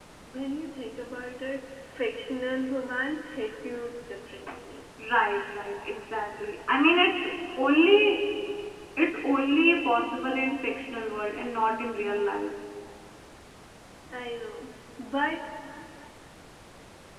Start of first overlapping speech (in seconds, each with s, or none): none